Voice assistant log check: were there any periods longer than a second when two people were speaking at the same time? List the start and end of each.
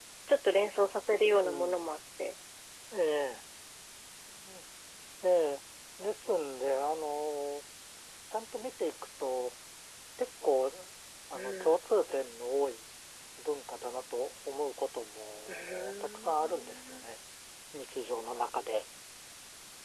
15.5-17.1

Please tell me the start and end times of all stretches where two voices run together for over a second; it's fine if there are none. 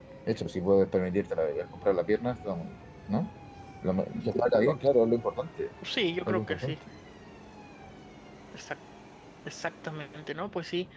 none

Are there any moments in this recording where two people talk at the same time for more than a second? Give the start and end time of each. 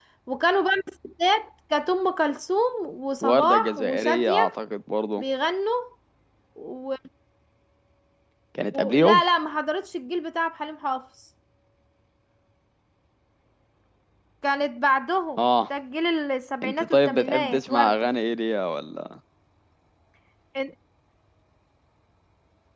3.2-4.5, 16.6-18.1

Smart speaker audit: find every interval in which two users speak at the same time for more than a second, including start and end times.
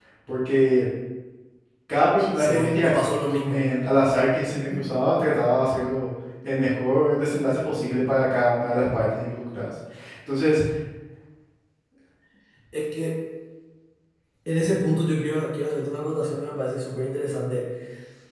2.4-3.7

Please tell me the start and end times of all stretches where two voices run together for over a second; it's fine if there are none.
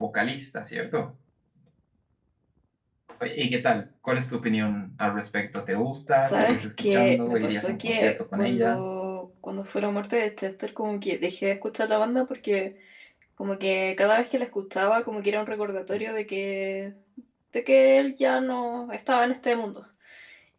6.3-8.8

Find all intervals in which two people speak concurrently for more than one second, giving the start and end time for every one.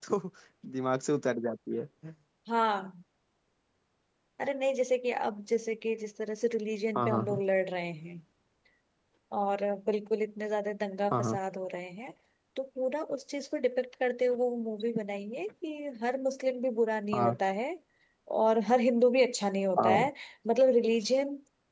none

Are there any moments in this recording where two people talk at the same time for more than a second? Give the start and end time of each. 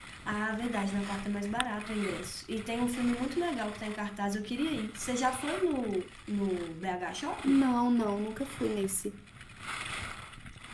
none

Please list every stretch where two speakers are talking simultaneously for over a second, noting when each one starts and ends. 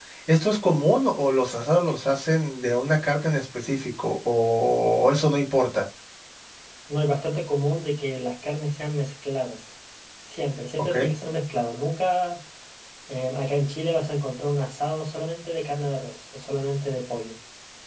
none

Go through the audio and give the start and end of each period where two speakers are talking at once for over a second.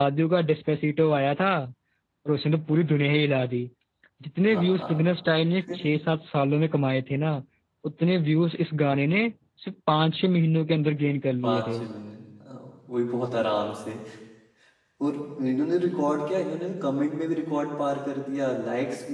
none

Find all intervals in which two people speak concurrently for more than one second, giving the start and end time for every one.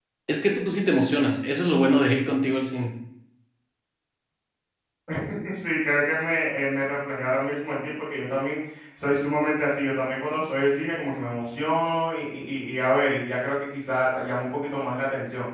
none

